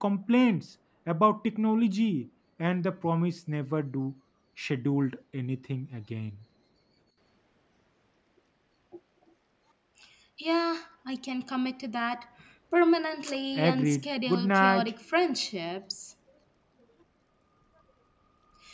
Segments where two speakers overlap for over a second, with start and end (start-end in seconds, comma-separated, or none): 13.6-14.9